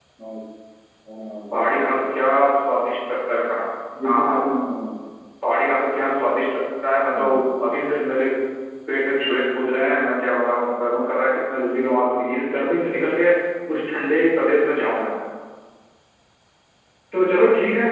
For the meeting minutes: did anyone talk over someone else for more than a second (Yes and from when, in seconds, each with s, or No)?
No